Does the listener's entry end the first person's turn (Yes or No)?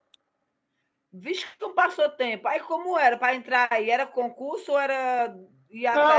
Yes